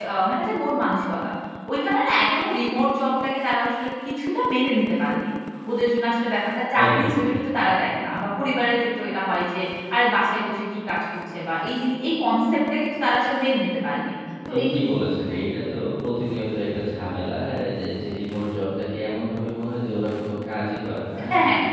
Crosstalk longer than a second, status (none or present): none